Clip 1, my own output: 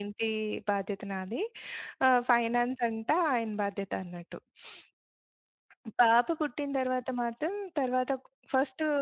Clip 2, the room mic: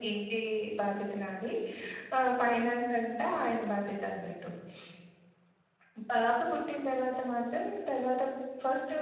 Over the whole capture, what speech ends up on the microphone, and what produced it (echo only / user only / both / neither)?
echo only